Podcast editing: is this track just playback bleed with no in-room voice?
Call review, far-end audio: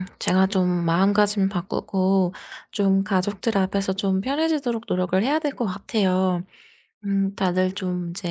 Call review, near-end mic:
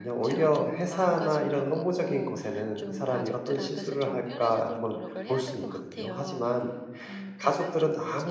No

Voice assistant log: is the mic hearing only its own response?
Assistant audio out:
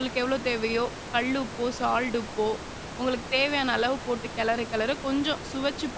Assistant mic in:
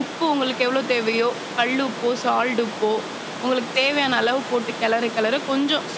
Yes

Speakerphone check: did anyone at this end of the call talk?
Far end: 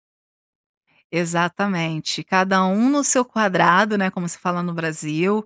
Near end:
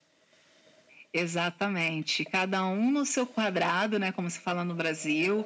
No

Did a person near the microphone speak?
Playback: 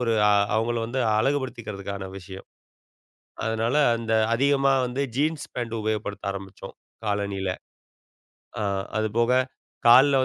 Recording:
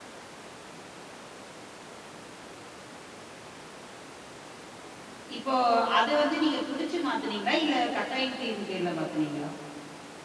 Yes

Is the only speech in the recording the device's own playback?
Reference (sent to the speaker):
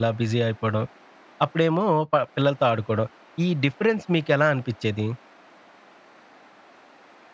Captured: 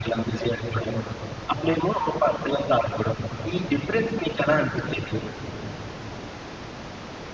Yes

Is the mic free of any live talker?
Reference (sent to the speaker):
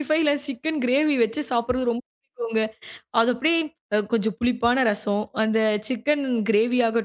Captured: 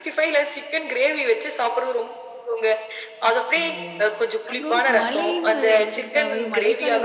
No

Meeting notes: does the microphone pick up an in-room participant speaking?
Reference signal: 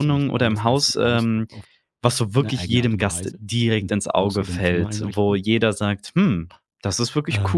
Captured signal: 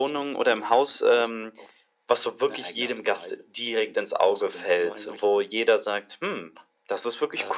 No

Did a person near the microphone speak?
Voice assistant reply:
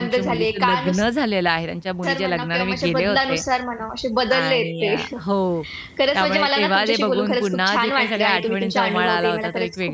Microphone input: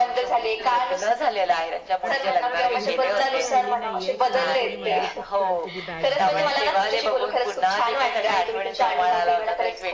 Yes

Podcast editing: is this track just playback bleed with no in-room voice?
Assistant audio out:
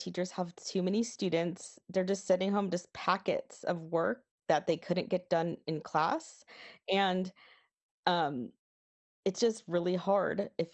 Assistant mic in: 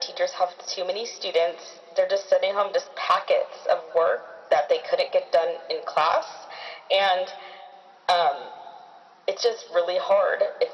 Yes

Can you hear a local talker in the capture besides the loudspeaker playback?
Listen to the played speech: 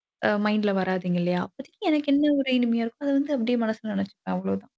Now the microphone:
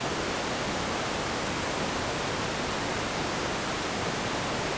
No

